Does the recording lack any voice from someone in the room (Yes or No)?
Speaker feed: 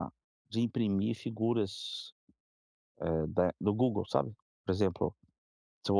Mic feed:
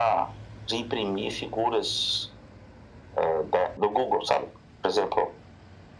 Yes